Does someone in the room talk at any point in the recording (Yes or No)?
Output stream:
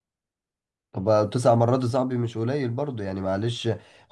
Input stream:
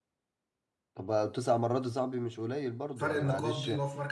Yes